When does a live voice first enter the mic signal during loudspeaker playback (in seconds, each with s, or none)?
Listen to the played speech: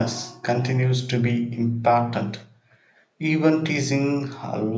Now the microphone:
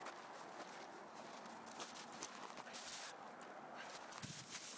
none